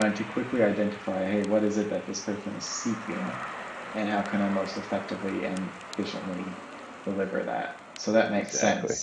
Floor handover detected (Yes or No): No